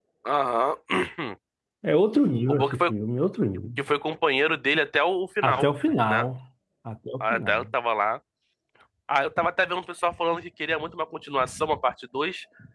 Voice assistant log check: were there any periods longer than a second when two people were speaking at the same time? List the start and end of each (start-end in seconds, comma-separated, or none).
none